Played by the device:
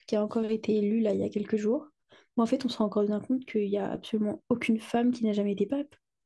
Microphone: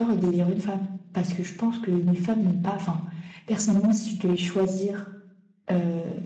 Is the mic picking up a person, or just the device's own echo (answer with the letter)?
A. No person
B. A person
B